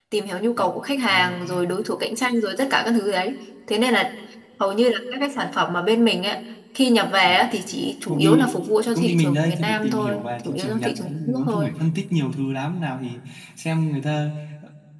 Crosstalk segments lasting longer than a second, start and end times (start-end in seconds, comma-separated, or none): 8.9-11.7